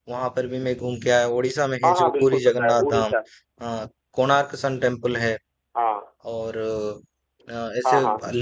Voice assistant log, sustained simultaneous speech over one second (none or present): present